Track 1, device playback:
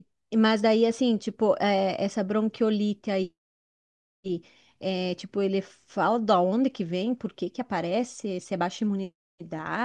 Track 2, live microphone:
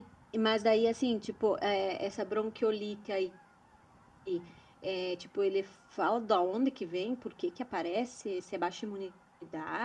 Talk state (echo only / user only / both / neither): echo only